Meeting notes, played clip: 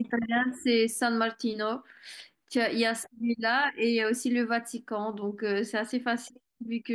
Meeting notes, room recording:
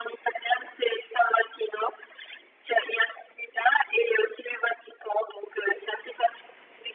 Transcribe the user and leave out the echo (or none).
none